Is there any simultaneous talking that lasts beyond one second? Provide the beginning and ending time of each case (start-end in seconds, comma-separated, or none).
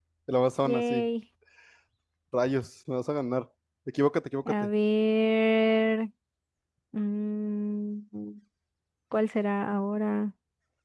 none